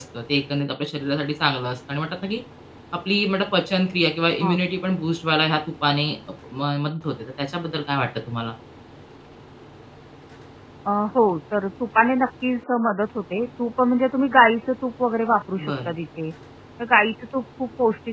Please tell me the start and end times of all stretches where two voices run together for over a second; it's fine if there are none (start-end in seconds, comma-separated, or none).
none